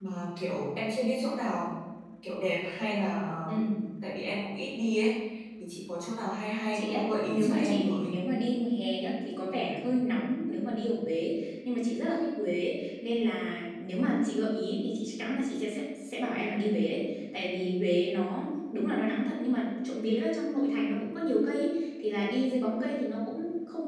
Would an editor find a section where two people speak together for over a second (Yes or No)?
Yes